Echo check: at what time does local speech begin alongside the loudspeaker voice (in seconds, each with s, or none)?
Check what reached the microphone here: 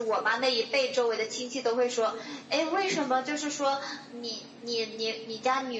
none